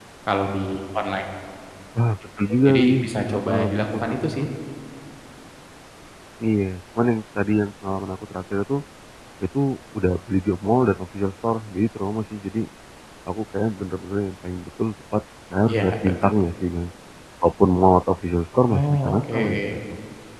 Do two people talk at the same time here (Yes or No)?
Yes